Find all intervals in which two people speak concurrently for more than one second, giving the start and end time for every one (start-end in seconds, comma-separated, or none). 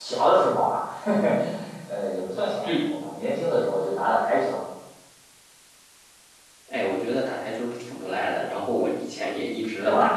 none